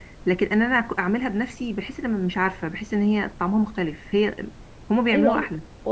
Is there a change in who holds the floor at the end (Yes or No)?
Yes